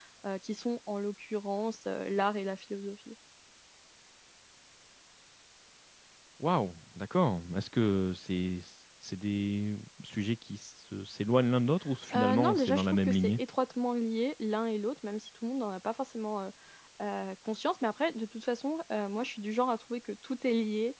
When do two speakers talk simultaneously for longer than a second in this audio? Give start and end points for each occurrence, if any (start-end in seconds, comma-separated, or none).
12.1-13.4